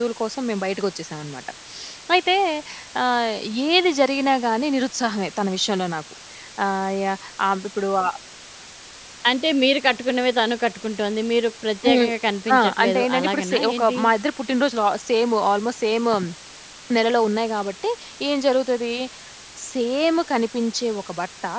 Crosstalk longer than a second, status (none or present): present